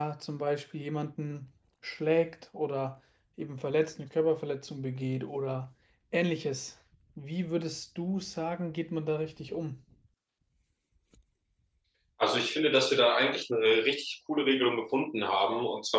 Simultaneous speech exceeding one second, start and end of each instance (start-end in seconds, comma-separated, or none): none